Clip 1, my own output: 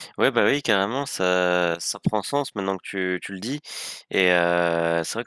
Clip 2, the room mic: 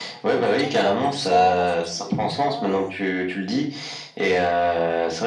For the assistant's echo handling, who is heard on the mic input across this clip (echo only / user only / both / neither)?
both